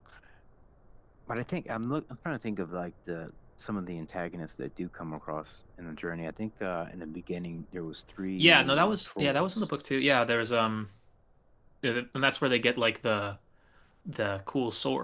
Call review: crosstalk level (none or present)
present